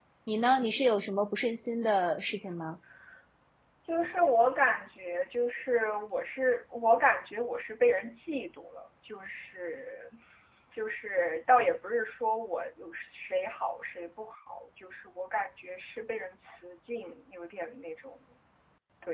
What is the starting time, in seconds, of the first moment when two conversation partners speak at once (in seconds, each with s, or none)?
none